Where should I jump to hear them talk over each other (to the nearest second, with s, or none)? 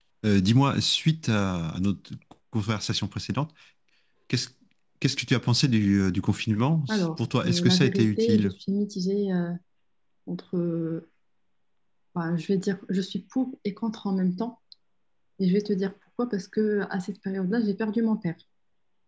7 s